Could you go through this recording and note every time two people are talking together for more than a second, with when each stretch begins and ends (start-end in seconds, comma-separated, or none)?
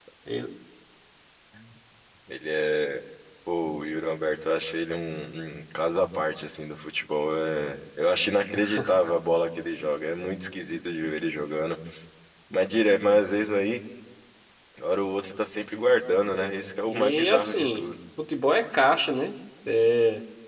16.3-17.9